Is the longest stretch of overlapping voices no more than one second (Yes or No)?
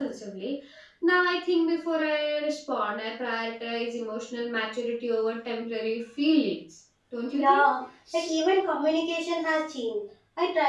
Yes